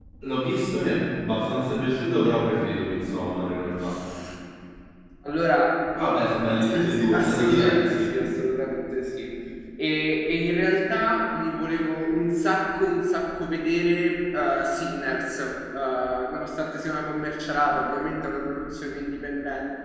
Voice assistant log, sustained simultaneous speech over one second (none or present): present